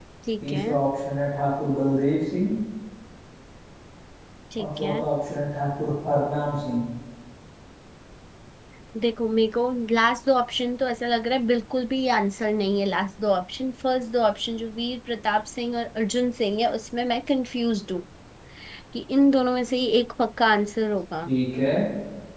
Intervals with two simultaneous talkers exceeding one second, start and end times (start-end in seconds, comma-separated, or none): none